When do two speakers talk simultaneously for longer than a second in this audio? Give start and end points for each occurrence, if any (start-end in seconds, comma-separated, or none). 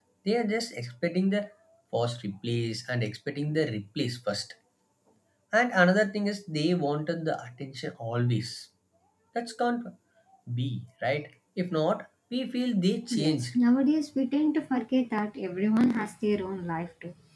none